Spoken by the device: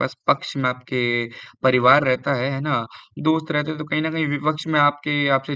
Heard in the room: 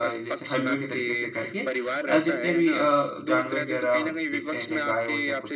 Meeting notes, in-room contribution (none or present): present